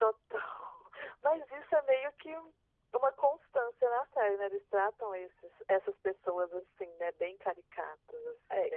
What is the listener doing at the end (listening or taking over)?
taking over